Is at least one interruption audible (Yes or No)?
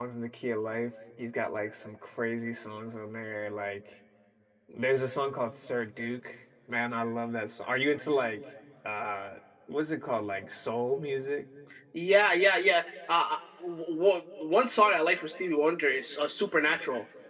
No